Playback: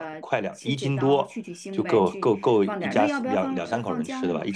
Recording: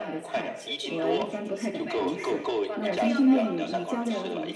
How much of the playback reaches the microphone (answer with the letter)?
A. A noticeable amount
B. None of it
A